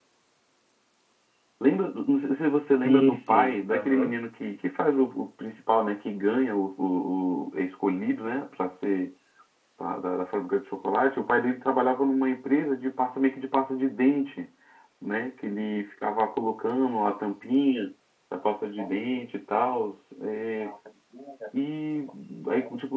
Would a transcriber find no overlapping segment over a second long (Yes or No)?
No